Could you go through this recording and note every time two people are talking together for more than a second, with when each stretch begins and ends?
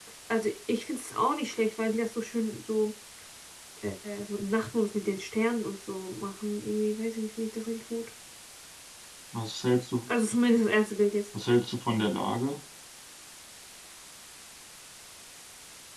none

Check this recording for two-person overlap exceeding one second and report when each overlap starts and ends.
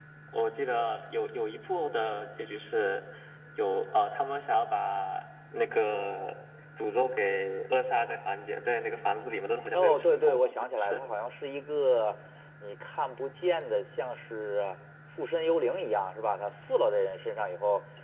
9.7-11.0

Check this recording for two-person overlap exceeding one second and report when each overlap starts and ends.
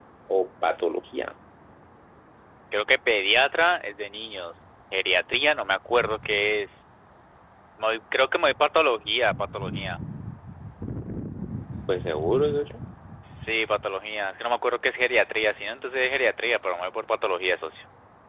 none

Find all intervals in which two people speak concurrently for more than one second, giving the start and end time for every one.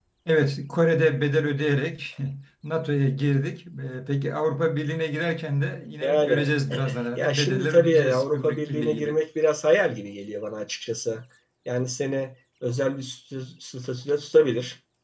7.2-9.2

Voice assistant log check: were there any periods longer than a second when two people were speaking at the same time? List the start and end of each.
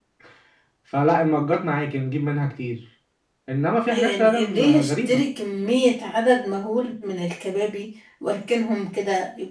3.9-5.2

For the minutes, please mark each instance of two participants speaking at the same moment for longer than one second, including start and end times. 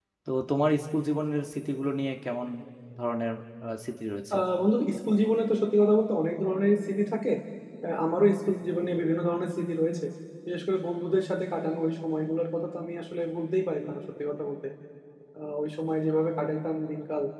none

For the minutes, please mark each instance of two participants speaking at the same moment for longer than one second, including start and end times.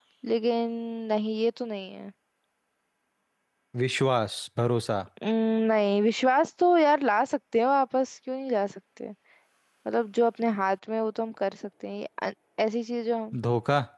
none

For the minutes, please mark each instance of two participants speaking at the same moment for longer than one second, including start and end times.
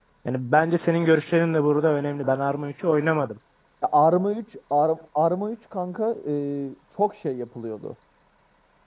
none

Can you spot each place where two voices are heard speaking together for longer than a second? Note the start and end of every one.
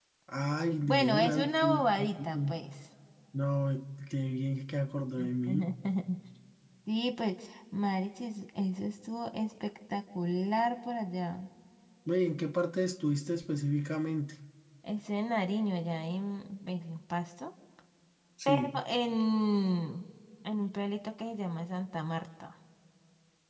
0.8-2.5

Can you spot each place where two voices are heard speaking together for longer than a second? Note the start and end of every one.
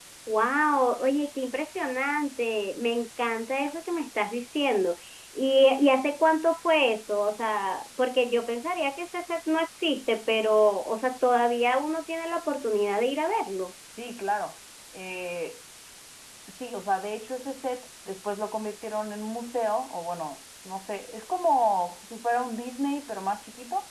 none

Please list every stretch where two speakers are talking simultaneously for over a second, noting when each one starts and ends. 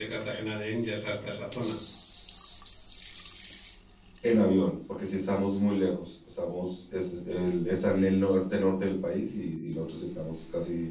none

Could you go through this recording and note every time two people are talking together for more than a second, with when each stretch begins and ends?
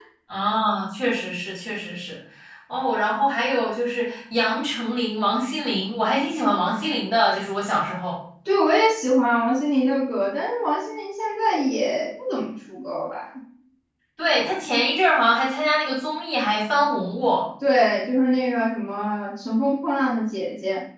none

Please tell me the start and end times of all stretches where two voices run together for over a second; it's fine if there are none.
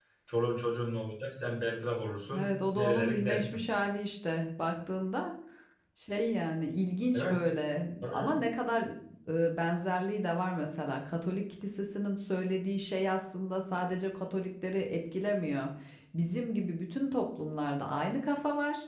2.4-3.6

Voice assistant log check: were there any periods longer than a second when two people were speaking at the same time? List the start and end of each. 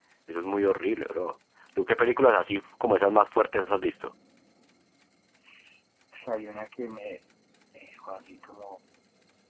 none

